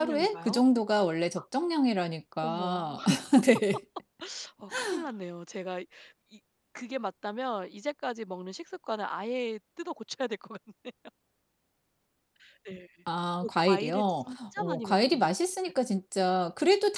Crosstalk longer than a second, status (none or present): present